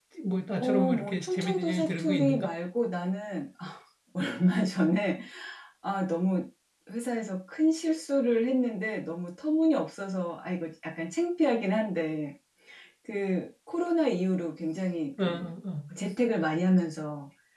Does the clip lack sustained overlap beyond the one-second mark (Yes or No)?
No